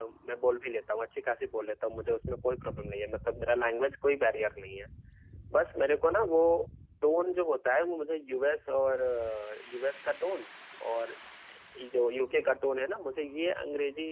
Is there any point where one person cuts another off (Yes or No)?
No